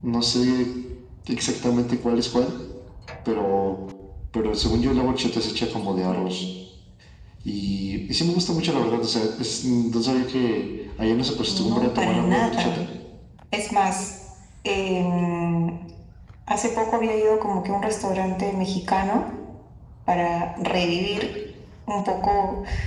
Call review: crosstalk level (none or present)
present